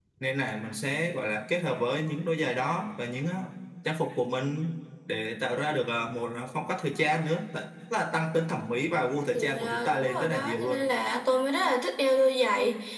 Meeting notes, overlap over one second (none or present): present